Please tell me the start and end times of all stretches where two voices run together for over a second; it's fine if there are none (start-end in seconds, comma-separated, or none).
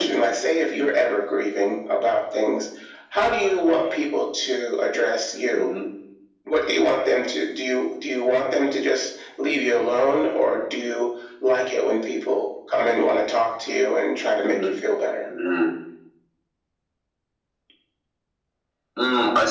none